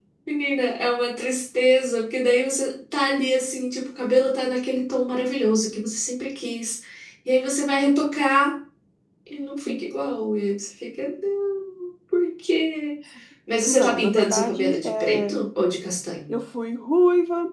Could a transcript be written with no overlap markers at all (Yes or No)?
No